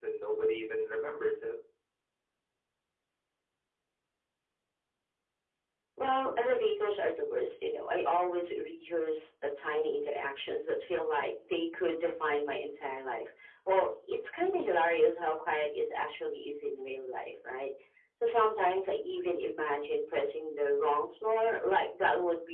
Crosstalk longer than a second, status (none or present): none